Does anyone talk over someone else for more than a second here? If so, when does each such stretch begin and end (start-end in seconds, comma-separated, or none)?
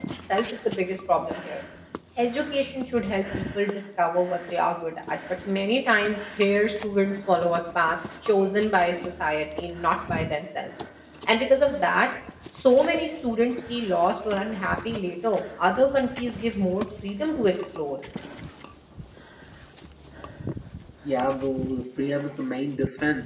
none